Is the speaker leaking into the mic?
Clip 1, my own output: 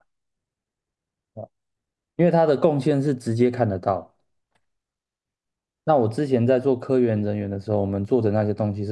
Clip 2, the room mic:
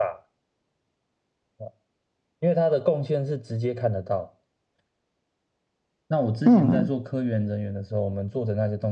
Yes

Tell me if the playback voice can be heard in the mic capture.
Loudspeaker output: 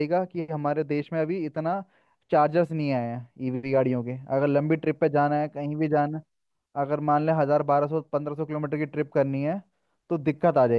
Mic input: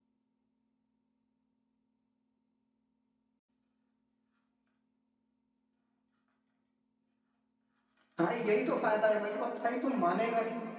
No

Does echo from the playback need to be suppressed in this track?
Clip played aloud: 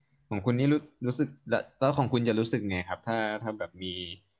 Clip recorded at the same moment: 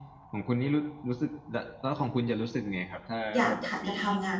Yes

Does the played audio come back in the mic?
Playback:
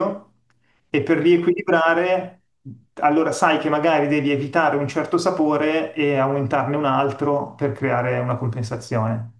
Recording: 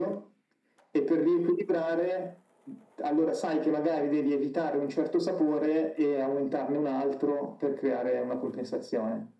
Yes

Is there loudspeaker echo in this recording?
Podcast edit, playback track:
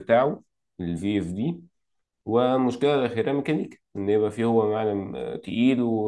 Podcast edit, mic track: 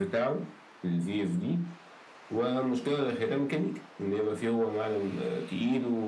Yes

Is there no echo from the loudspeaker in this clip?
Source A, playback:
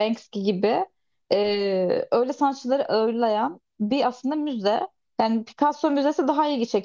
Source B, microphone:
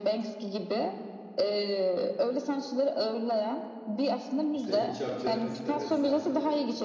No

